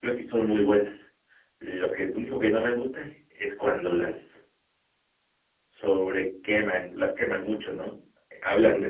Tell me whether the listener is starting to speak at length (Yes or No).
No